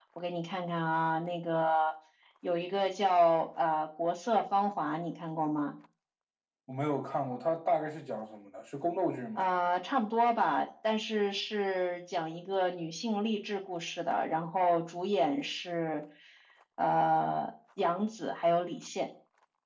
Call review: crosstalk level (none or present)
none